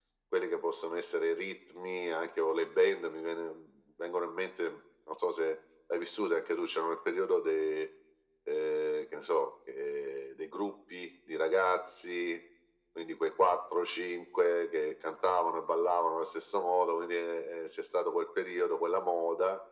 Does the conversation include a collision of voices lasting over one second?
No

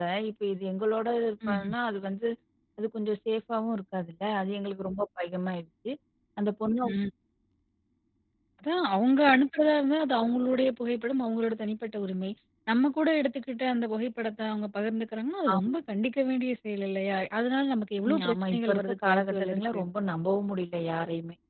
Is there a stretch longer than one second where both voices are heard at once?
Yes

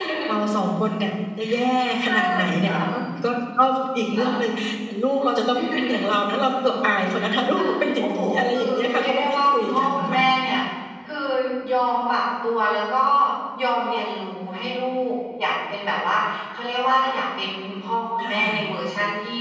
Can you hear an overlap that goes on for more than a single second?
Yes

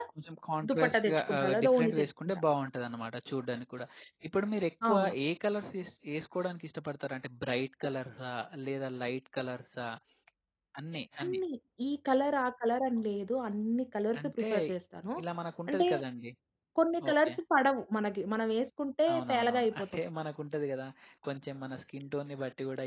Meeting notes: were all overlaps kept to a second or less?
No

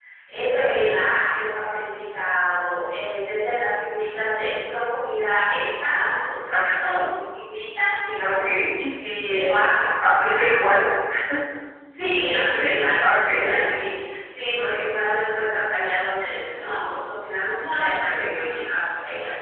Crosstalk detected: Yes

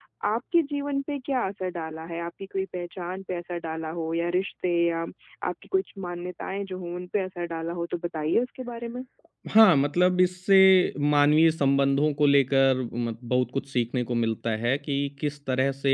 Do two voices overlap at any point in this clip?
No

